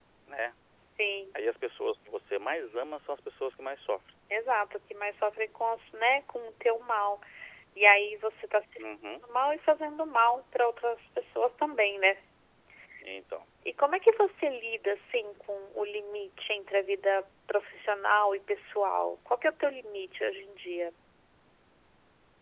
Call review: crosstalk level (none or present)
none